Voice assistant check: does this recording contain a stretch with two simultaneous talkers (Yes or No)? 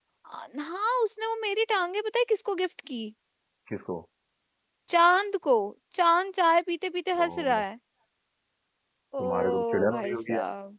Yes